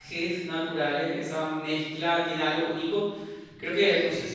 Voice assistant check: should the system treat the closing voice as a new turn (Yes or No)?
No